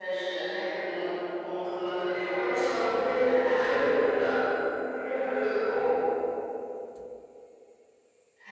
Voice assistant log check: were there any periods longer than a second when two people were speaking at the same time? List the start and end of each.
2.1-3.8

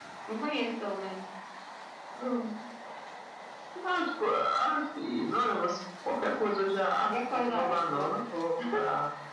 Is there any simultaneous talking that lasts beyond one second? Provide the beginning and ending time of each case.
7.0-8.2

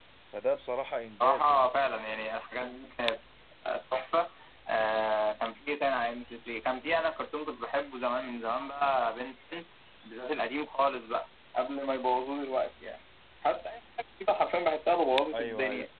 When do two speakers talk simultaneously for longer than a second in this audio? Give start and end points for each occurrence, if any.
none

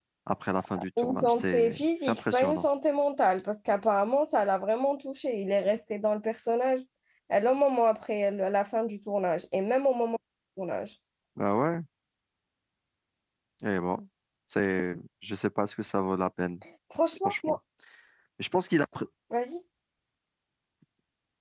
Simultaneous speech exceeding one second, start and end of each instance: 1.0-2.6

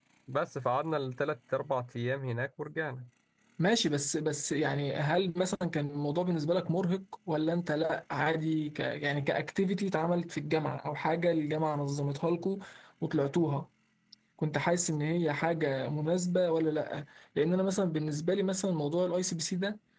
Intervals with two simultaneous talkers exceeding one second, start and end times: none

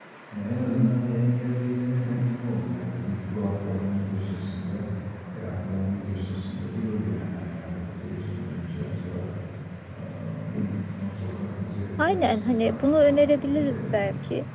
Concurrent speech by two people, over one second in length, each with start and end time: 12.1-14.0

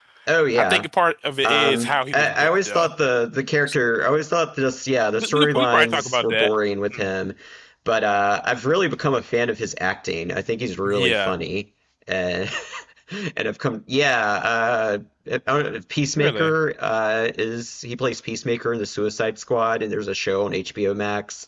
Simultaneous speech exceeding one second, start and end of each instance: 1.4-2.9, 5.2-6.5

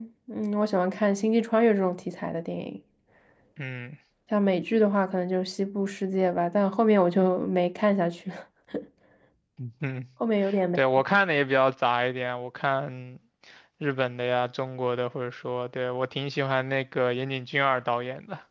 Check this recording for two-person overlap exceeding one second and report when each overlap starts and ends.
none

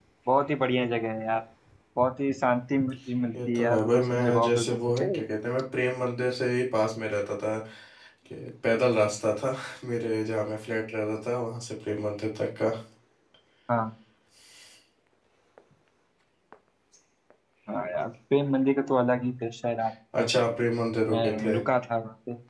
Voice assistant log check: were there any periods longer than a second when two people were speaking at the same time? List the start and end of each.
3.5-5.0

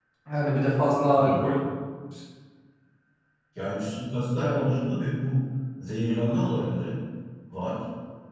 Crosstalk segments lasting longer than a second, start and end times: none

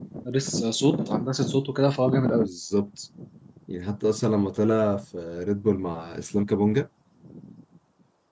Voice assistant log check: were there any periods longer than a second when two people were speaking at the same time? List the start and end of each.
none

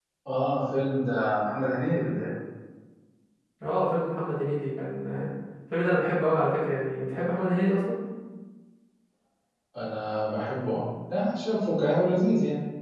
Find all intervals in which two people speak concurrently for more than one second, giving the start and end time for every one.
none

